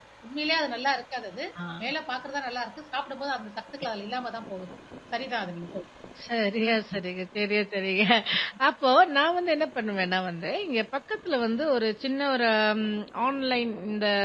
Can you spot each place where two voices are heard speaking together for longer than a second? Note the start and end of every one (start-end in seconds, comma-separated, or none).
none